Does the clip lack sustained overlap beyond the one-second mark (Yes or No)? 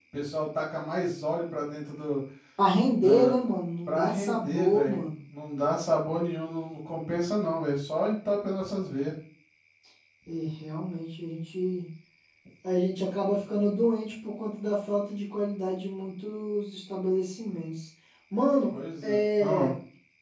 No